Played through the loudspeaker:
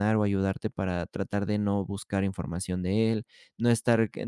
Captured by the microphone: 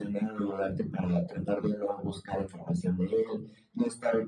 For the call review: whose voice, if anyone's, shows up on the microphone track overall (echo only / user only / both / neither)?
echo only